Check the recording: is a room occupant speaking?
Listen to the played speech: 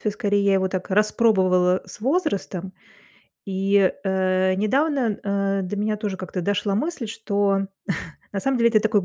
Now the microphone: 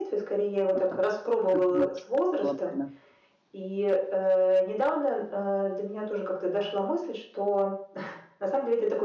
Yes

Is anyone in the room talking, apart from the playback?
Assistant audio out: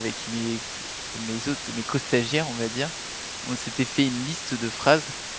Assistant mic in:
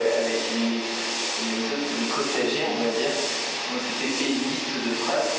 Yes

